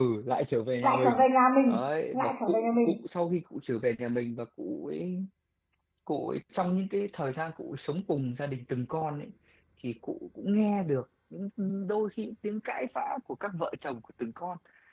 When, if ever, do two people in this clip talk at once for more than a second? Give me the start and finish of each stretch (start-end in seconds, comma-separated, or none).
1.7-3.0